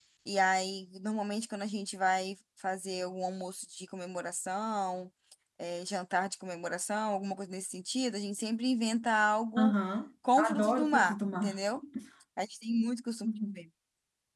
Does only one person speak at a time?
No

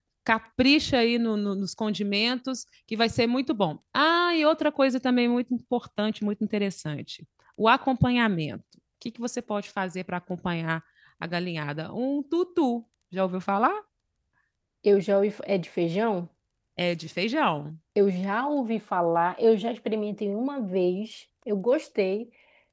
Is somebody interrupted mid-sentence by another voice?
No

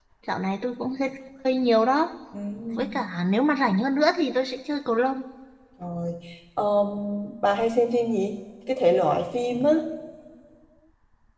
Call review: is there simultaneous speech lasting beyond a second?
No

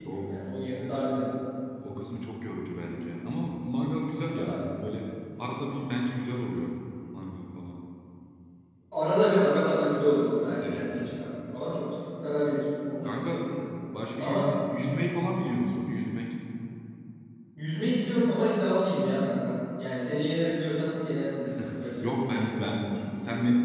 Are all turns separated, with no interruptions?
No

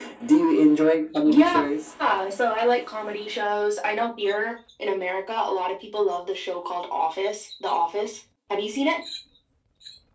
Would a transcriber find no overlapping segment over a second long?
Yes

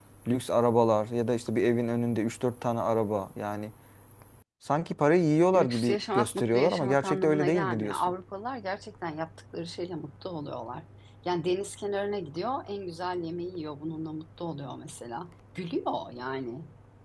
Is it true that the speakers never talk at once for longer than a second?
No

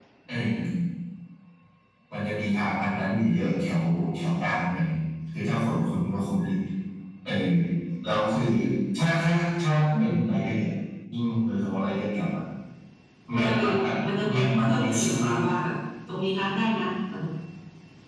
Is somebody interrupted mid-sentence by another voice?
Yes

